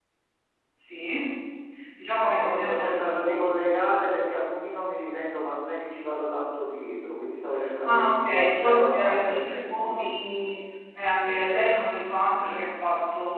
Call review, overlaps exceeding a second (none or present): present